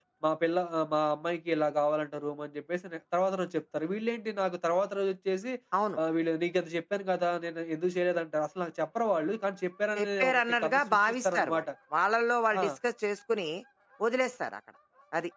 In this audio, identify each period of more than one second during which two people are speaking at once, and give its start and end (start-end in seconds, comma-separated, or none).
10.0-11.6